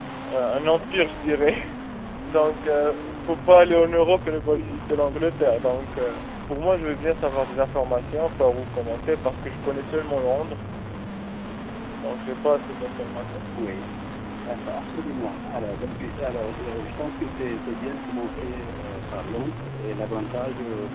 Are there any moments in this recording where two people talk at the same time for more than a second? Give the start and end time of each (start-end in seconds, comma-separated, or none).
none